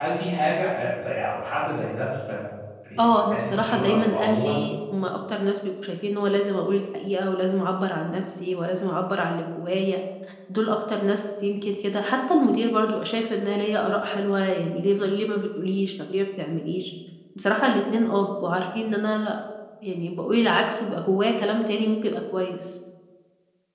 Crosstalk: present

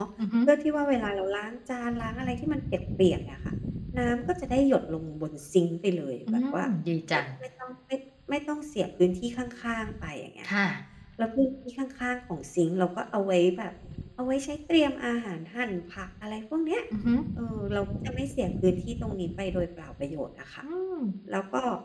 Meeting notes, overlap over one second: none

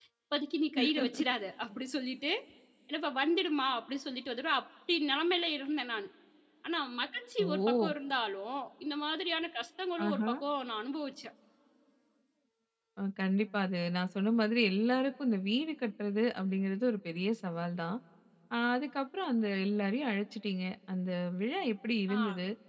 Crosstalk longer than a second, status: none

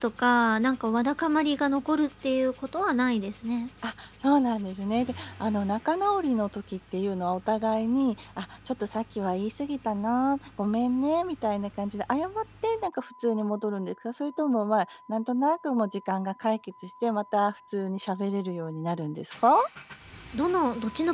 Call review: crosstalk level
none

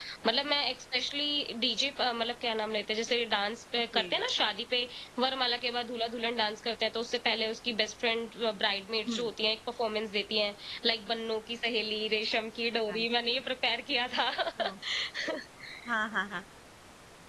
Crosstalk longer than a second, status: none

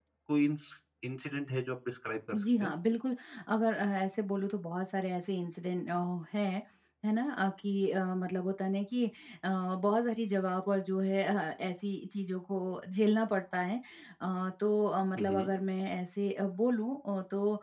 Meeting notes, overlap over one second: none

